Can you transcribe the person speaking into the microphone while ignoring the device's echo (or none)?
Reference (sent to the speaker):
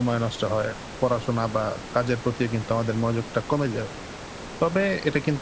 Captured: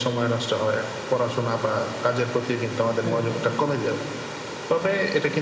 একদম।